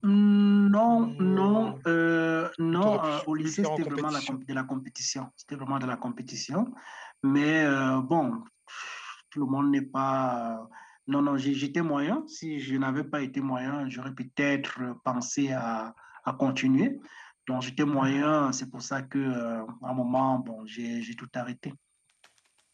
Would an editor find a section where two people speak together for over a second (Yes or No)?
Yes